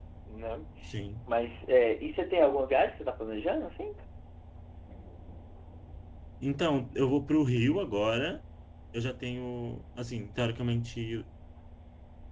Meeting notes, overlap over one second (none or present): none